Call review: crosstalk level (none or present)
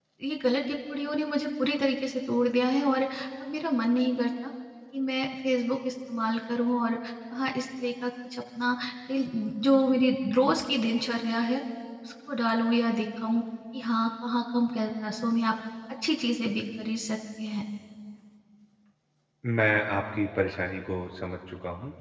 none